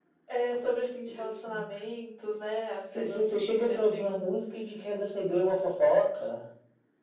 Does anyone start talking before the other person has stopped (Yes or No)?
Yes